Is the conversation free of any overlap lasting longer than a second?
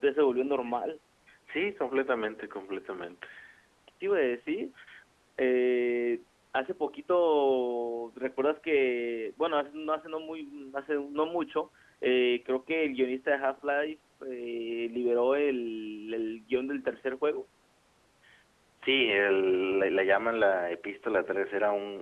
Yes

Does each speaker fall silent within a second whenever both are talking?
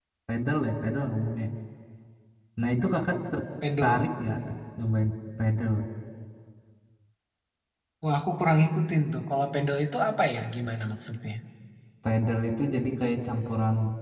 Yes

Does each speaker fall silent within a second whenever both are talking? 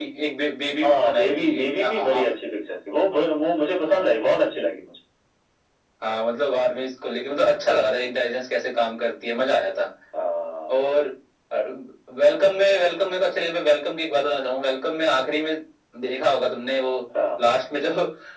No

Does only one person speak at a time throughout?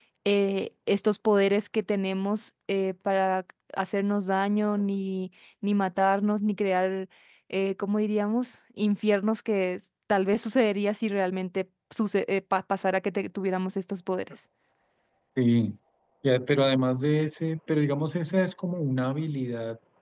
Yes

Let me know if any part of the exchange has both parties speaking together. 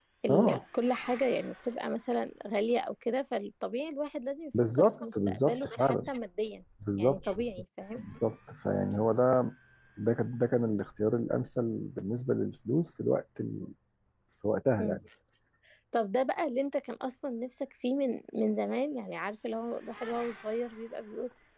Yes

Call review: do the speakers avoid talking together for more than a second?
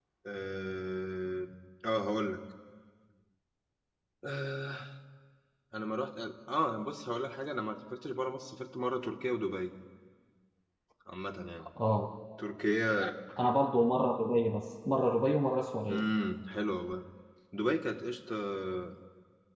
Yes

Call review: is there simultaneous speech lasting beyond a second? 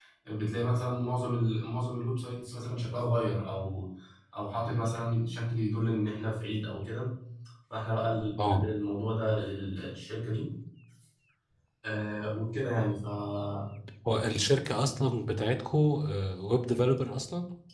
No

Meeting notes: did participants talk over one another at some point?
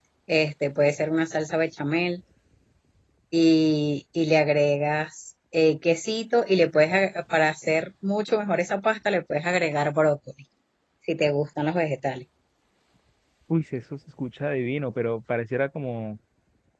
No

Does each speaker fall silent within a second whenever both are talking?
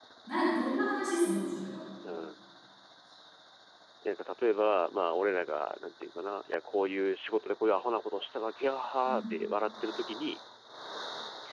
Yes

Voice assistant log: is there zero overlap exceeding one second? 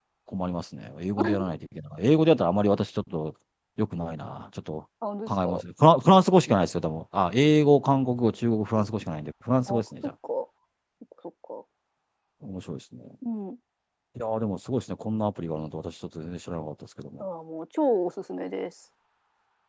Yes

